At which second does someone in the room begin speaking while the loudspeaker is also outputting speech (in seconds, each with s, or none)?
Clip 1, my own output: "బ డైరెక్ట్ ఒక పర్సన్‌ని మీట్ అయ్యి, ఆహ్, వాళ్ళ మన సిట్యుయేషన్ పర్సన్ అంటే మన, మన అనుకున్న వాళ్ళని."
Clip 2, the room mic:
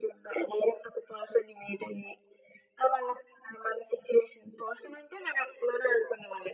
none